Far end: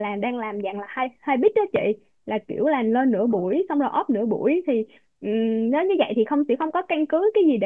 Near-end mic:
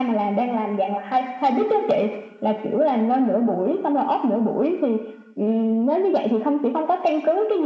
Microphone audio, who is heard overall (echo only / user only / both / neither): echo only